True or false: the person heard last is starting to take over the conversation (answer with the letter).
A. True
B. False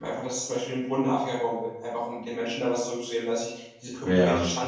B